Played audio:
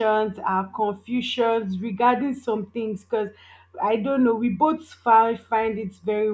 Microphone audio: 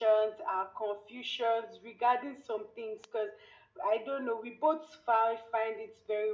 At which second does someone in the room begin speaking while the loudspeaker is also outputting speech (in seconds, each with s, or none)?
none